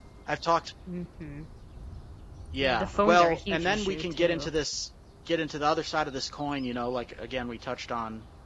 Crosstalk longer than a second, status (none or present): present